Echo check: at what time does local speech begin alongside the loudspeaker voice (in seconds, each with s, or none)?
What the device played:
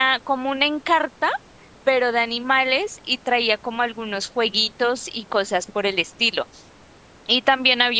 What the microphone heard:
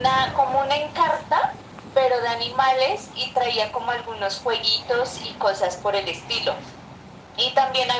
none